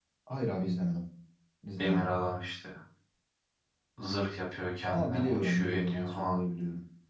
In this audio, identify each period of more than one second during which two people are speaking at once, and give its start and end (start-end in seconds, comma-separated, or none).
4.8-6.4